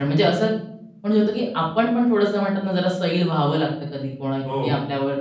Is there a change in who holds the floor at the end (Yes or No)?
No